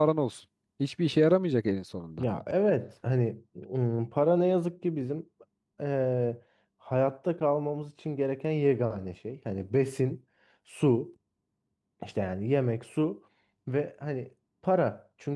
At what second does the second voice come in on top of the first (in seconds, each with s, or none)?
none